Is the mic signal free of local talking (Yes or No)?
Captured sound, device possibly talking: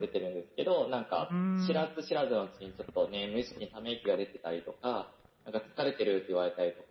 No